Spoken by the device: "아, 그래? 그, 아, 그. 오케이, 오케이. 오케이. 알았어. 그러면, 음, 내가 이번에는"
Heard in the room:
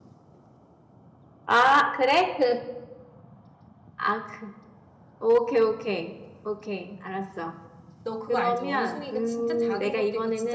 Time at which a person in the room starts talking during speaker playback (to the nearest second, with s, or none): 8 s